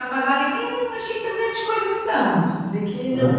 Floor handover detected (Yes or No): No